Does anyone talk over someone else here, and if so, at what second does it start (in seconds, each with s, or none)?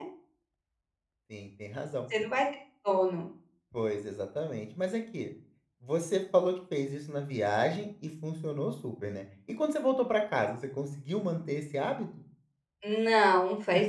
none